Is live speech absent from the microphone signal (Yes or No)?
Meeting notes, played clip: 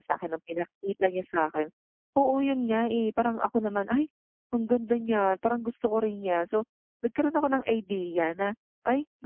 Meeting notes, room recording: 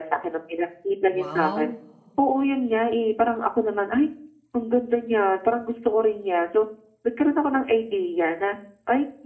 No